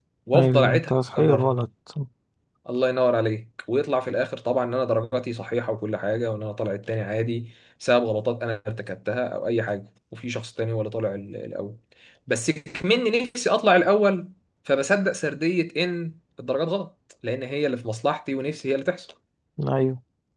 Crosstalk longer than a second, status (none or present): present